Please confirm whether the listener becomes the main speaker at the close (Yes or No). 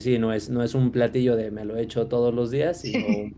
No